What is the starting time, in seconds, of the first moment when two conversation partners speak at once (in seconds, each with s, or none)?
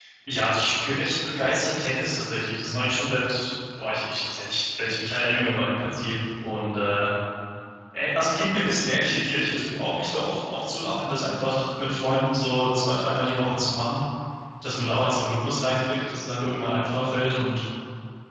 none